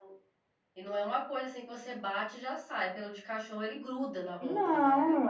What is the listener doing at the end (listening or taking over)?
taking over